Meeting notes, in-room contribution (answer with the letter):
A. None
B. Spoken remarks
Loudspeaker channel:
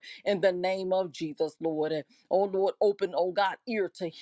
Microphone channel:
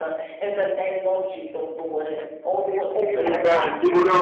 B